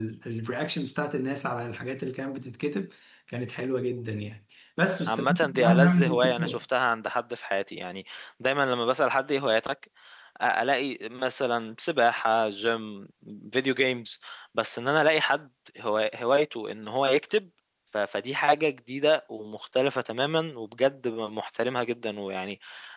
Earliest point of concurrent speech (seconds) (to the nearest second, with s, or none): 5 s